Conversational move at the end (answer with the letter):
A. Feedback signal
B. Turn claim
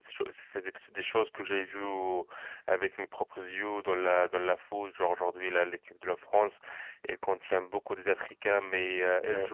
A